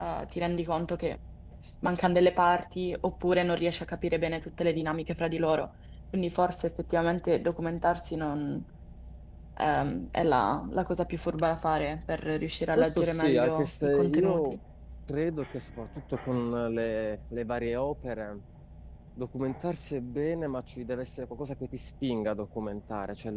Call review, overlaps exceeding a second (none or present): present